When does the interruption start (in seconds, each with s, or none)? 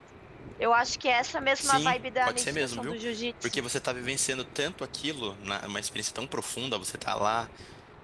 1.6 s